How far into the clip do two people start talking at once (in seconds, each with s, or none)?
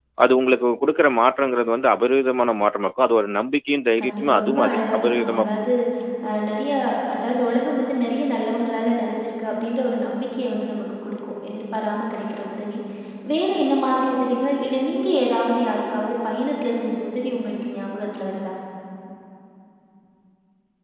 4.0 s